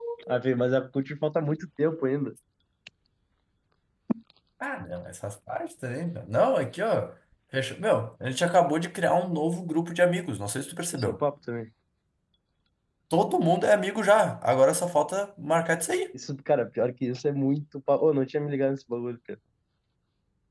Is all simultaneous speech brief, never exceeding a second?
Yes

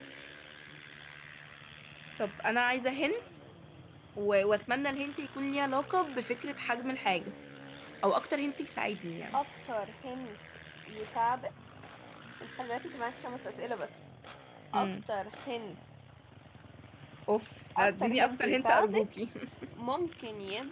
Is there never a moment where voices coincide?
No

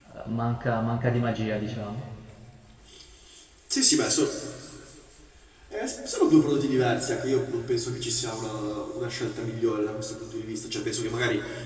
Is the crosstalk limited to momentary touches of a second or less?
Yes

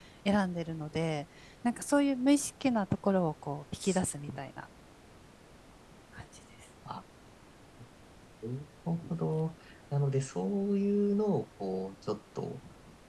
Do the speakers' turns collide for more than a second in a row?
No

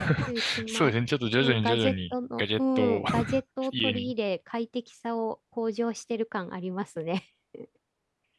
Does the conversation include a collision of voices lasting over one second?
Yes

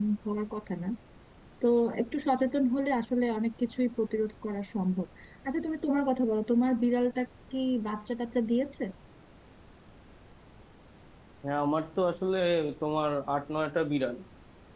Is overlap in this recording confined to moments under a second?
Yes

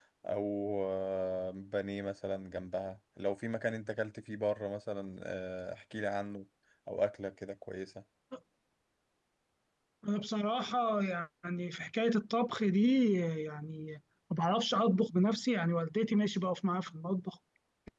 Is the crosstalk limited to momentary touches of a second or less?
Yes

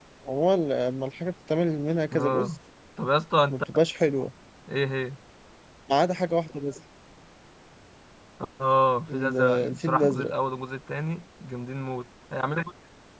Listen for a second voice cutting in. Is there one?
Yes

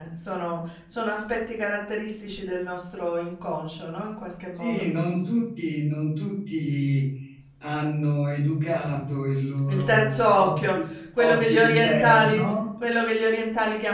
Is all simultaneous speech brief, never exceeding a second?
No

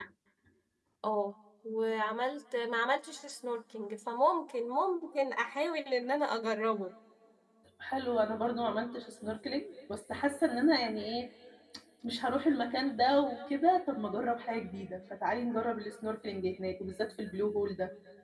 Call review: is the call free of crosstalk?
Yes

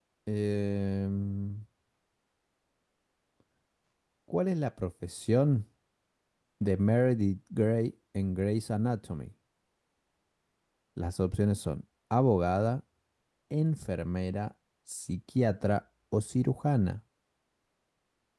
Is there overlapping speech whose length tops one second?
No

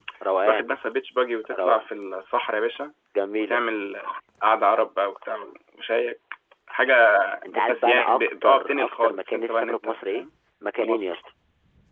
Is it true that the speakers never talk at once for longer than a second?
No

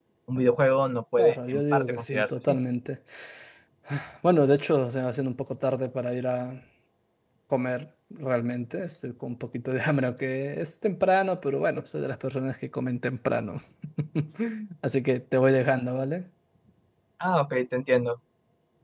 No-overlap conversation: No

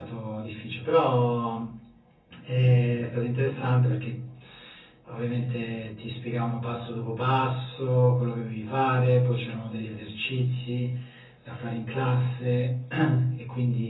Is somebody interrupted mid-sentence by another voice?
No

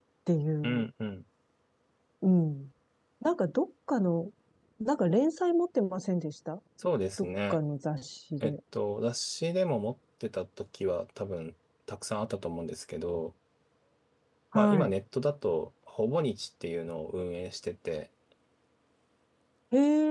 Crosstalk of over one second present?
No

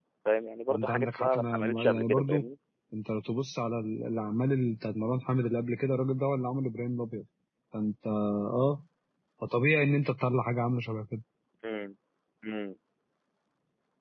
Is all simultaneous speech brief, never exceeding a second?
No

